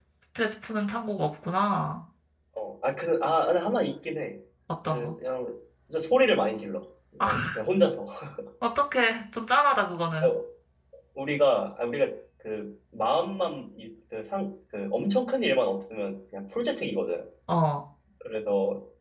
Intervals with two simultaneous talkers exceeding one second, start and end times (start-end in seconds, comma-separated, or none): none